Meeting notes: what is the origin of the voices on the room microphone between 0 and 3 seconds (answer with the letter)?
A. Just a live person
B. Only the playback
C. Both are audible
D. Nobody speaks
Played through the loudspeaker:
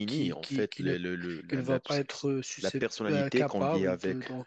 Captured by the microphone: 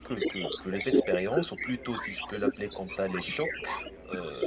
C